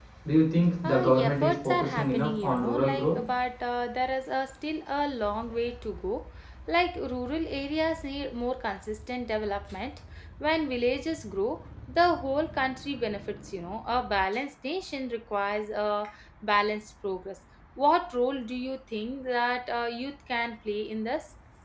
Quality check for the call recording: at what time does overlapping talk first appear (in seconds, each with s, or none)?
0.8 s